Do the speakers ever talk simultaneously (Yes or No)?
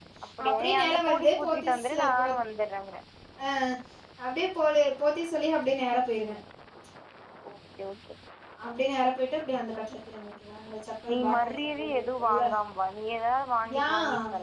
Yes